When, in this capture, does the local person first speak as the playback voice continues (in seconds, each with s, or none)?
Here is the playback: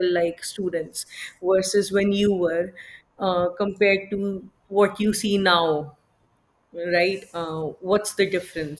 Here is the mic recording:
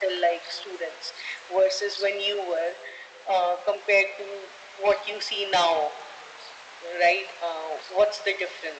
none